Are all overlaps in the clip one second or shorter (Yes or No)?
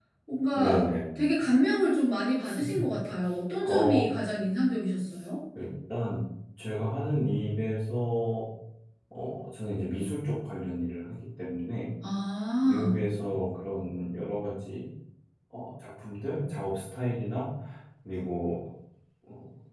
Yes